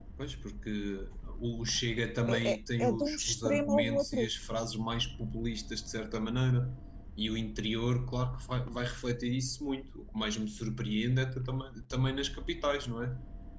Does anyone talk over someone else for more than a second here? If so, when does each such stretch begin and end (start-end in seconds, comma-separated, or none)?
2.3-4.3